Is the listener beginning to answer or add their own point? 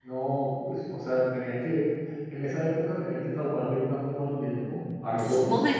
Yes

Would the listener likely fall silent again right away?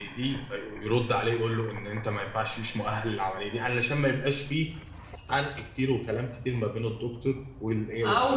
No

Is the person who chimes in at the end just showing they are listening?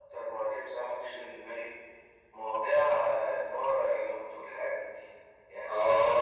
Yes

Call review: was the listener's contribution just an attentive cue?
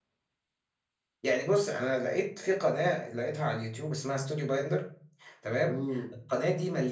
Yes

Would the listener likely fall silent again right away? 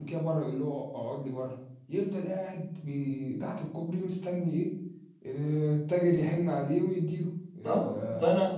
No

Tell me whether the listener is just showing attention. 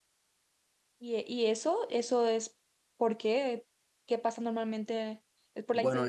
No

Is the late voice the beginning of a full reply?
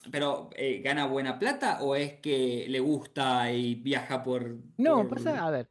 Yes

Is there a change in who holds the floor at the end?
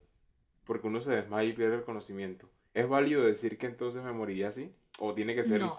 Yes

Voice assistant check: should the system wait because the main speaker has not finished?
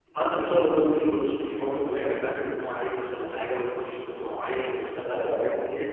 Yes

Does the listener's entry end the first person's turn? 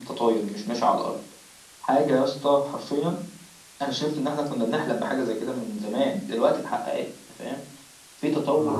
No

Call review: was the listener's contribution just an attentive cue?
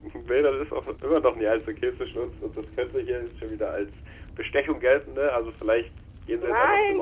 No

